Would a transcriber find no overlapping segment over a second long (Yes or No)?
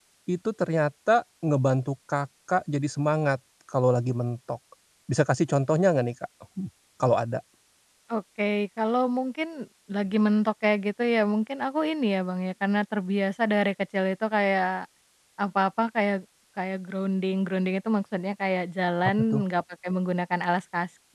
Yes